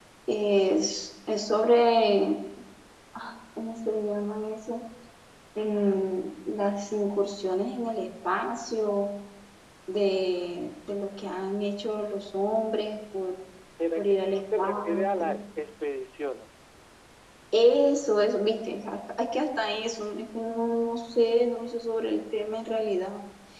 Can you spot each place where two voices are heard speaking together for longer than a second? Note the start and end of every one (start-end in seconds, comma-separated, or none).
14.0-15.4